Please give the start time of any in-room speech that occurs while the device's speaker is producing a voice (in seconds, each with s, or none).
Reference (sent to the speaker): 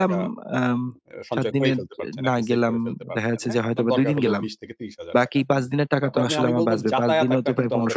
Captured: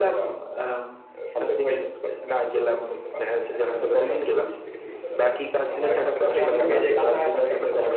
5.7 s